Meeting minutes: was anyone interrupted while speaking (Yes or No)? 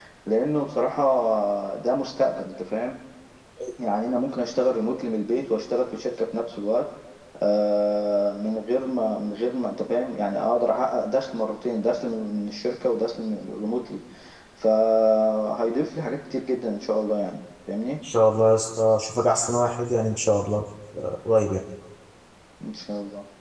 No